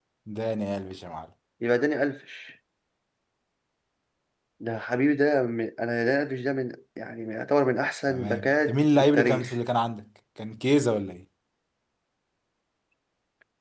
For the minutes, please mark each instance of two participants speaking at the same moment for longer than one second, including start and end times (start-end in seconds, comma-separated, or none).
8.1-9.6